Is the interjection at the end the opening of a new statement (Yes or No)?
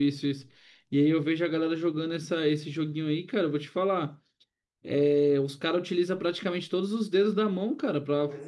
Yes